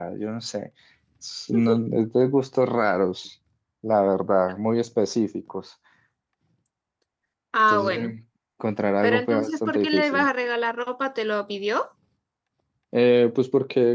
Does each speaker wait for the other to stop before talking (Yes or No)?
No